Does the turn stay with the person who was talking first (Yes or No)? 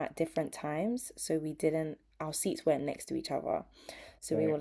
Yes